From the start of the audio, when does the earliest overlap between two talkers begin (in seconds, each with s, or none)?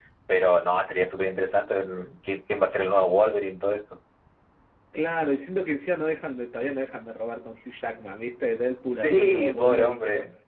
9.0 s